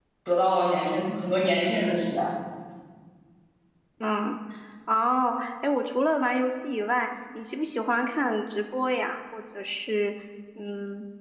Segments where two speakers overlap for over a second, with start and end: none

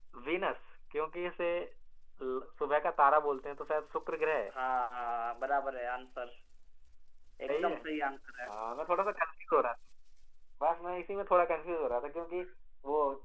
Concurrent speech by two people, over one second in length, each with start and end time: none

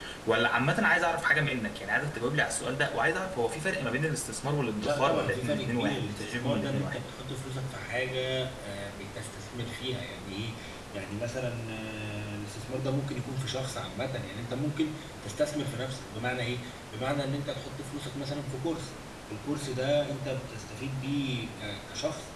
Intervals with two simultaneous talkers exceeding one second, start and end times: 4.8-7.0

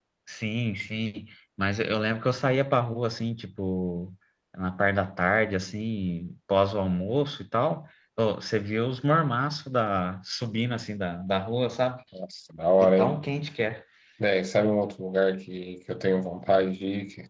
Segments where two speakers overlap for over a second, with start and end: none

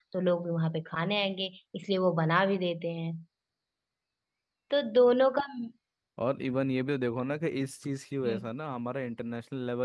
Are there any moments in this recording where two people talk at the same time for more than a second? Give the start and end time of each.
none

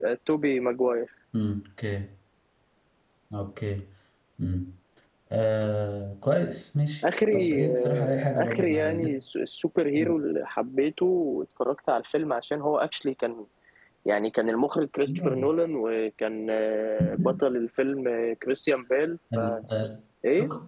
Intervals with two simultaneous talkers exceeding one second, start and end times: 7.3-9.1

